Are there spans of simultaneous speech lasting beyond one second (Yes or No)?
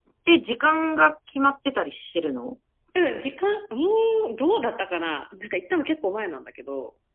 No